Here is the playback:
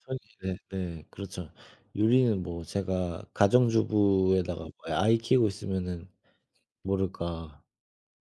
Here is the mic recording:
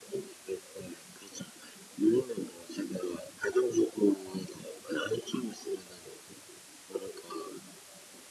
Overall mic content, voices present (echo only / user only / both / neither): echo only